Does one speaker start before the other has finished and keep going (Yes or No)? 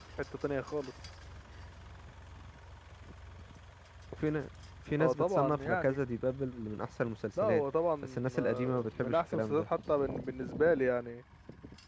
Yes